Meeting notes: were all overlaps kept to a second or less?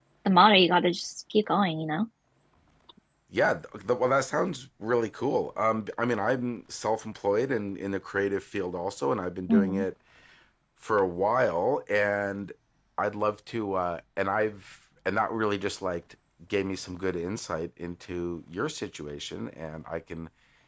Yes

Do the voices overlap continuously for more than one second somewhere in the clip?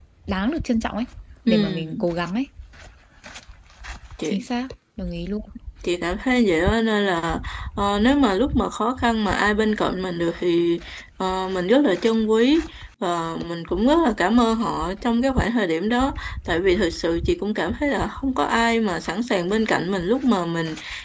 No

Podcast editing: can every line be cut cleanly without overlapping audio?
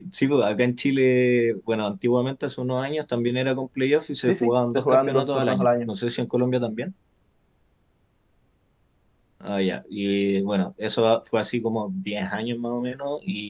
No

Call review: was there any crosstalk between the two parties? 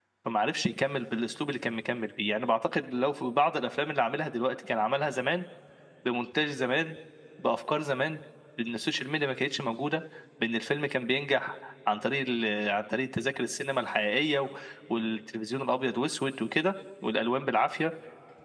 No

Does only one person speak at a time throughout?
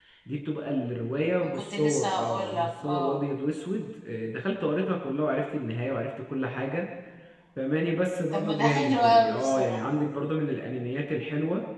No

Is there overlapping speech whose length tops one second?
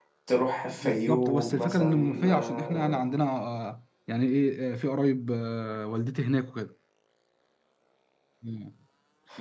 Yes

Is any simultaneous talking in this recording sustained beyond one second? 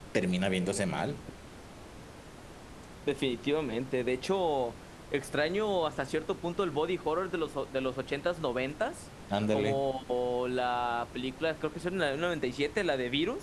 No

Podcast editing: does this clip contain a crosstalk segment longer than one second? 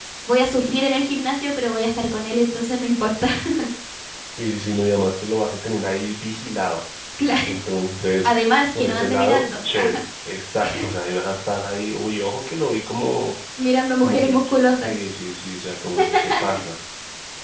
Yes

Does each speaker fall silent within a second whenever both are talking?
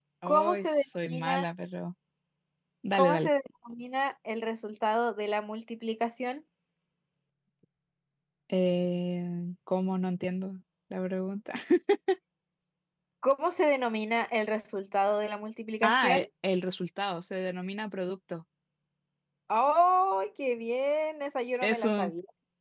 No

